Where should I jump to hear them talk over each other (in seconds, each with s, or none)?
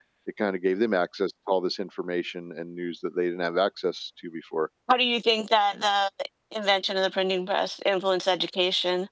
none